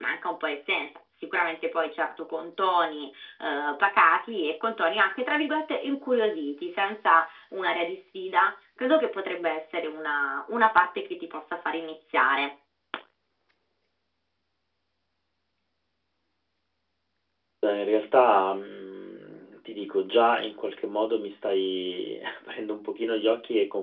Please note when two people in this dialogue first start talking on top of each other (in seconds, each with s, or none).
none